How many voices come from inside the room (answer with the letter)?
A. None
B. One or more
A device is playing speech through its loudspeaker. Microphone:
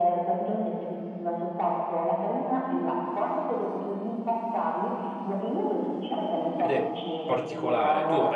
B